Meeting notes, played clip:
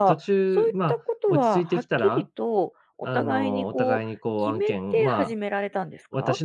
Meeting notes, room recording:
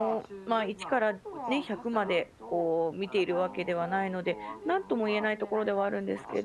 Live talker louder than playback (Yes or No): Yes